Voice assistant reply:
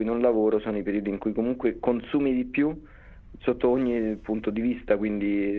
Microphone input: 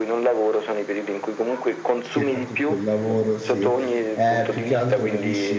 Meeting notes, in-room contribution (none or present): present